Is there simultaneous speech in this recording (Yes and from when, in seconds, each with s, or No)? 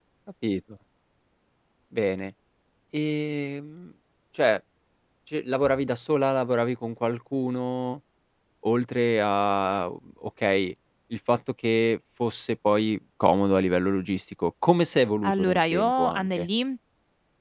Yes, from 15.2 s